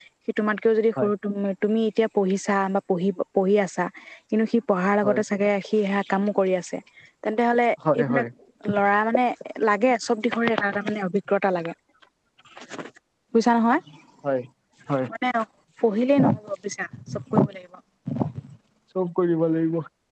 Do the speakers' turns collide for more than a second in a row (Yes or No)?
No